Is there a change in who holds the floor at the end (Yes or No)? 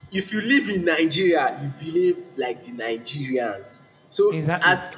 No